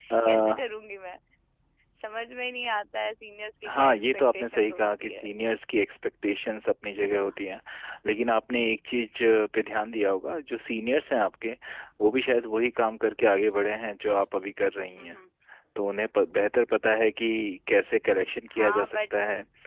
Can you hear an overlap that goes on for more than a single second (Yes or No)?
Yes